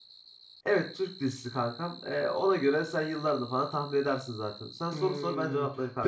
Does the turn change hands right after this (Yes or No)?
Yes